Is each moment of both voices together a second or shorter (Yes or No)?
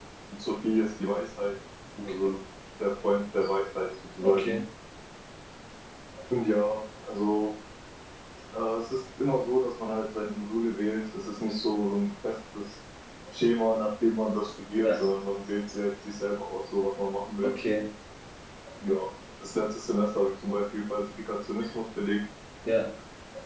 Yes